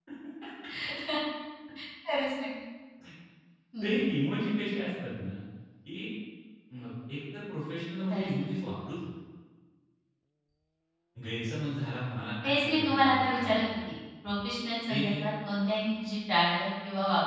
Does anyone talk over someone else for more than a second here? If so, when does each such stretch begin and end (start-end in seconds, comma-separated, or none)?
12.4-13.8